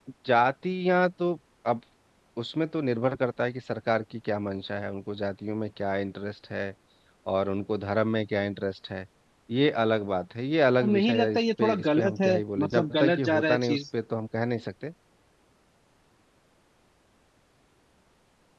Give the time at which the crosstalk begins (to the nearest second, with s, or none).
11 s